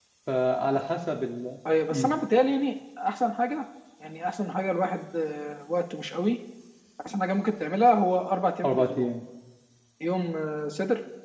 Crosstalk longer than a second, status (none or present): none